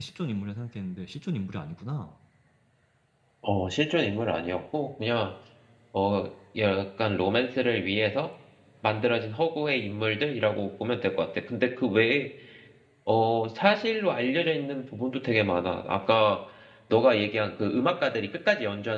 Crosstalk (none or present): none